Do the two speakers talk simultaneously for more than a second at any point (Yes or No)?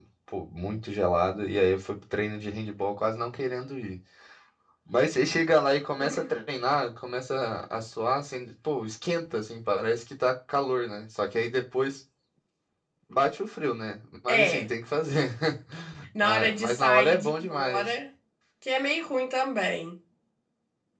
Yes